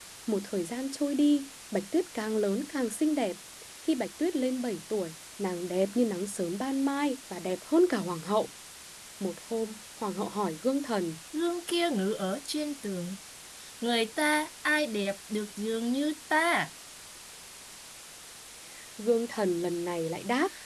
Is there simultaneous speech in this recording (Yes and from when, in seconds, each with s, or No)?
No